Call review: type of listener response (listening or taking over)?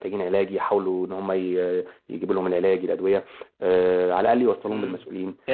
taking over